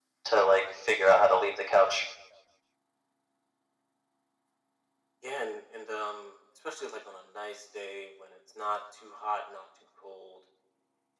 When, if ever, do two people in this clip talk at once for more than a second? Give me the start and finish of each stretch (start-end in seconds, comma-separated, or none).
none